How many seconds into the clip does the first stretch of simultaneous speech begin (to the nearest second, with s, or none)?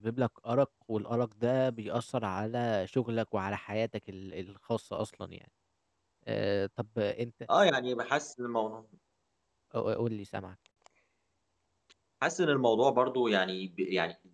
none